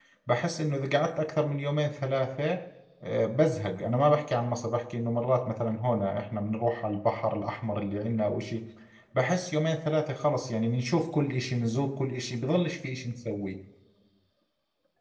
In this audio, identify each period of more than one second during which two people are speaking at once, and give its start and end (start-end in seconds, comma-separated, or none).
none